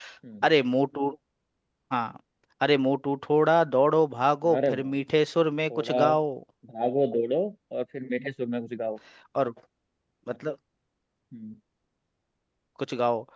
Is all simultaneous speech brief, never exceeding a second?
Yes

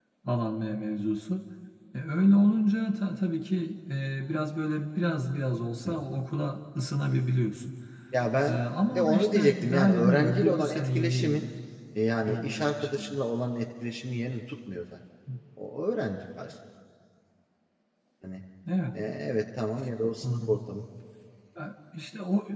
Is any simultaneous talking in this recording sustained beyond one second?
Yes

